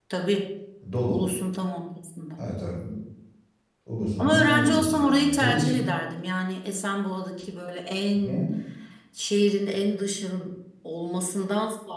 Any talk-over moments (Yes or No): Yes